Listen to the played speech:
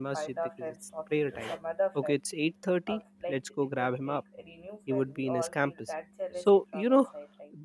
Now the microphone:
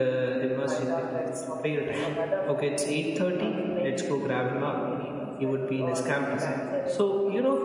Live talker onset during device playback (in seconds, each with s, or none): none